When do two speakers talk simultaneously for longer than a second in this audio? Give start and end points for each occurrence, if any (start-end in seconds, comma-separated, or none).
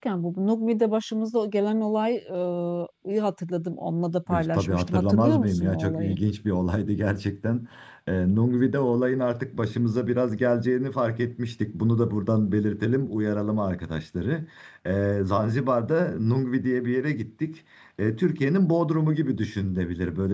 4.3-6.2